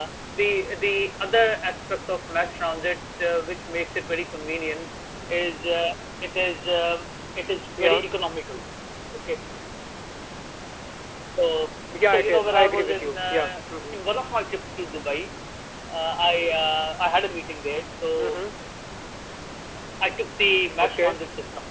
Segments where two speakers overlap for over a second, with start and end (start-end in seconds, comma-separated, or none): 12.1-13.5